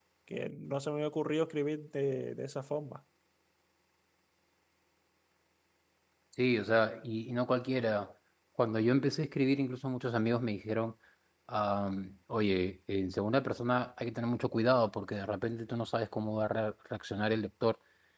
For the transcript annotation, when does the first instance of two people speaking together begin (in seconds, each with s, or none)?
none